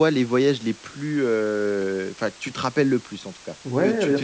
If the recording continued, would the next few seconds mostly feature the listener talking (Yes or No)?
Yes